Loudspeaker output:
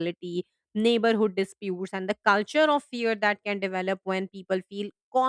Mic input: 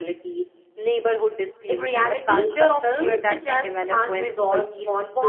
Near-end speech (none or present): present